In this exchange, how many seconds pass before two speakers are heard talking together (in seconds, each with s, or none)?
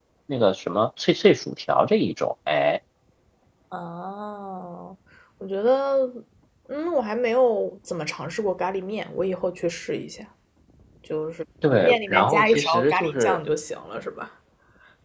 11.8 s